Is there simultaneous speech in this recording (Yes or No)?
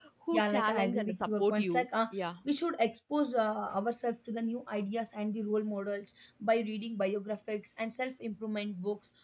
Yes